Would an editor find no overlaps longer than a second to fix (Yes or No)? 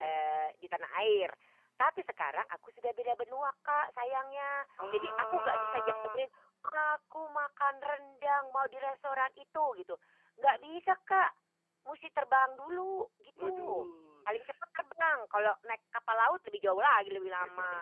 No